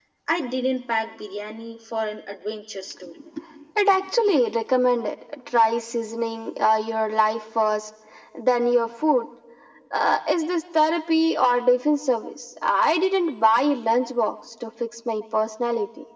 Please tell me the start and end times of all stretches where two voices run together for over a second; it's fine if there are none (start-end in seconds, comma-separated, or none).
none